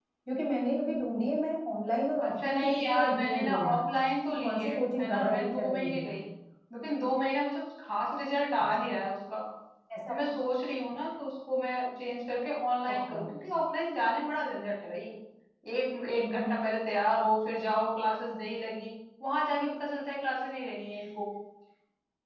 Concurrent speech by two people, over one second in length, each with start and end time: 2.2-3.8, 4.3-6.1

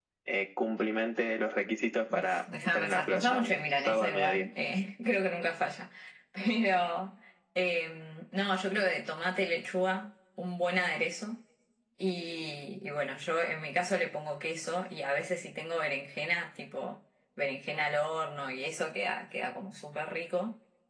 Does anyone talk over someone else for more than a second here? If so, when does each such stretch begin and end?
2.1-4.5

